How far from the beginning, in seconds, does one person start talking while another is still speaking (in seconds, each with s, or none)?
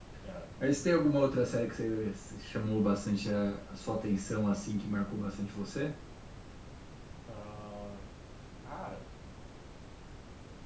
none